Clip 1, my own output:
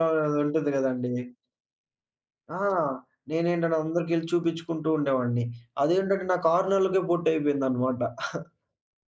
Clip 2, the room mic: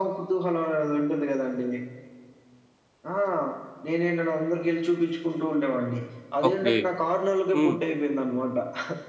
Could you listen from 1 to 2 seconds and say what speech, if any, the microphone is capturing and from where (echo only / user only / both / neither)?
echo only